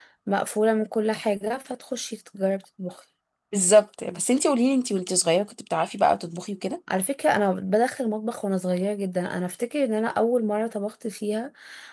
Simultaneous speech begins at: none

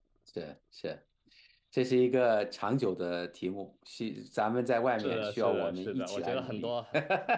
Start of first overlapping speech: 5.0 s

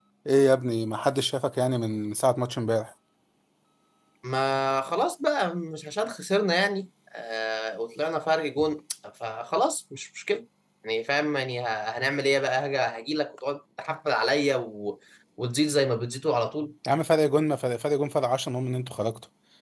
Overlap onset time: none

